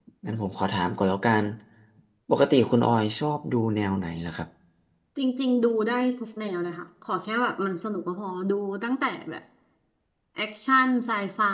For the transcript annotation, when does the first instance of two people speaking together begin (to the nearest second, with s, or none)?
none